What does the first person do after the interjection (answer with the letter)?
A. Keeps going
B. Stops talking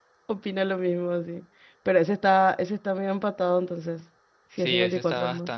B